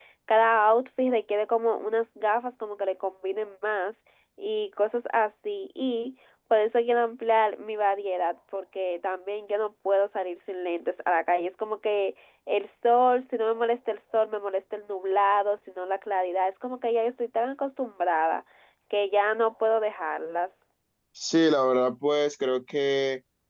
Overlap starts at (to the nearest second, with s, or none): none